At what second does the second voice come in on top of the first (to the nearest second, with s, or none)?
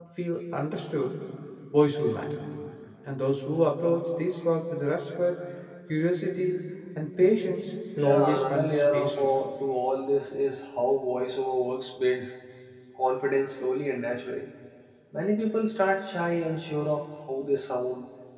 8 s